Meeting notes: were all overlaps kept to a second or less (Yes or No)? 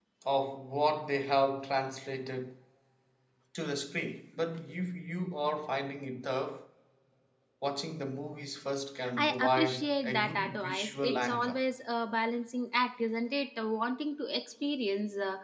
No